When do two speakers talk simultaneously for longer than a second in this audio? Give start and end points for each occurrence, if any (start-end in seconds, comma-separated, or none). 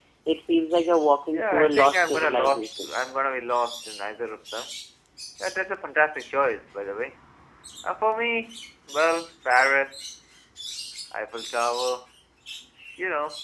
1.3-2.9